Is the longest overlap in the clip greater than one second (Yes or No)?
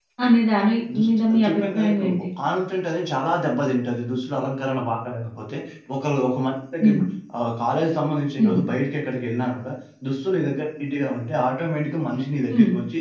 Yes